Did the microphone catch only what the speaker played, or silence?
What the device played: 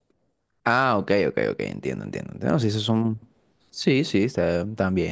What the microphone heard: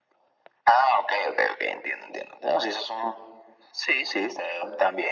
Yes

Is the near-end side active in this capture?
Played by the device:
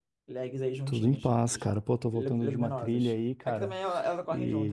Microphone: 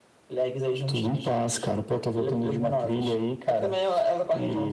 No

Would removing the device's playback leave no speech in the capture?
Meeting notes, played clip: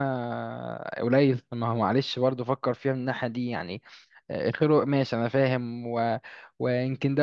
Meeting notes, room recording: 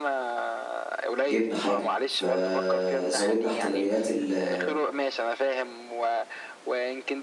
No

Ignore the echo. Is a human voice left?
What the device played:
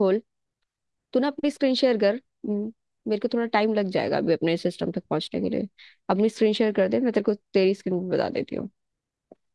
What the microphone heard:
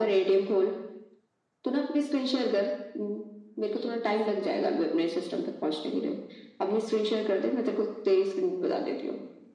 Yes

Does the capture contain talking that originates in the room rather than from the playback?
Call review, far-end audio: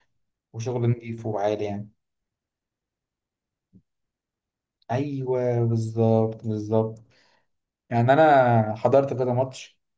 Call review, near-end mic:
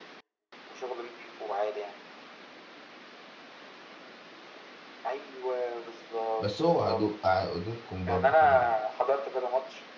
Yes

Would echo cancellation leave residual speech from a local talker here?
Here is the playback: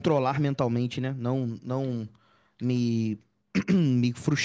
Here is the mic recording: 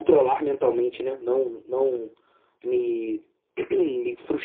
No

